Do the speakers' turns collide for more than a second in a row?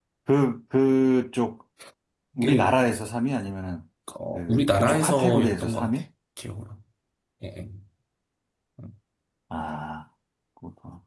Yes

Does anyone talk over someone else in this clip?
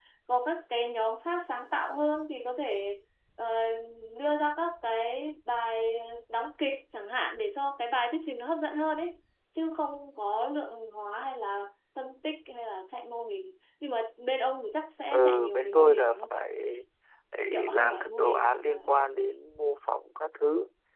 Yes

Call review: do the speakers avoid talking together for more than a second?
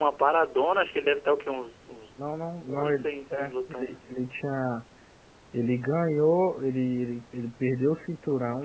No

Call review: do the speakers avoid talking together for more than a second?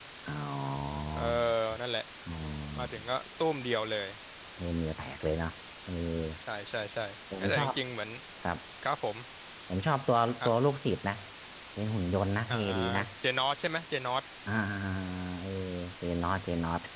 Yes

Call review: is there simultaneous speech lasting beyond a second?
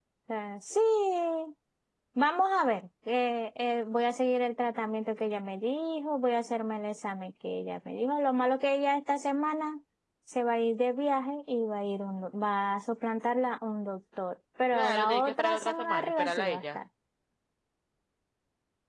Yes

